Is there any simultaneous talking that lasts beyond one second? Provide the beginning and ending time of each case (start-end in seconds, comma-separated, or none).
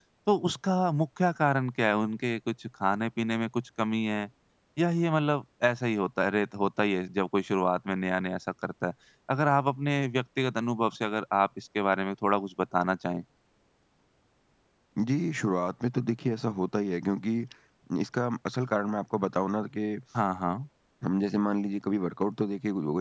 none